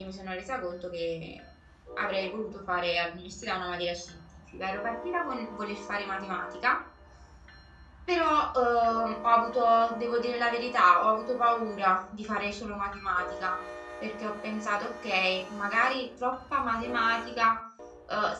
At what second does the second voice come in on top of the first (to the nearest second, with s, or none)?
none